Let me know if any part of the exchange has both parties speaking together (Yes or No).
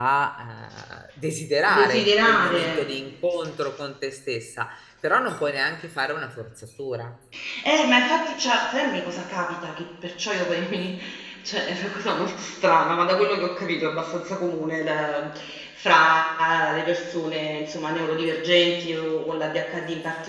Yes